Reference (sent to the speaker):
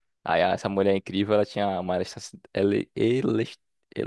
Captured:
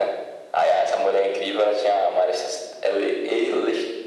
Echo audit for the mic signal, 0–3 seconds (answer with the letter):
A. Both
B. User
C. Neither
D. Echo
D